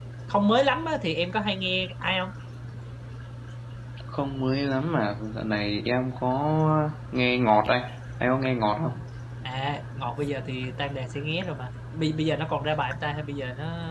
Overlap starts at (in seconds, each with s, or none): none